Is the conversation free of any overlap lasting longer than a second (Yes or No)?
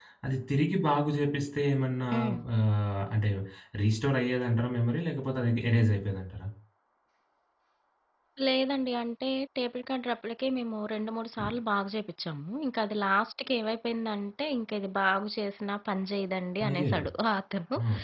Yes